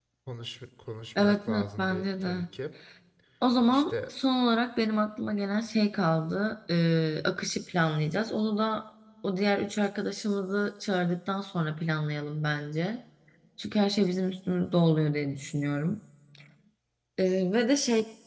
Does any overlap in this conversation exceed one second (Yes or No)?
Yes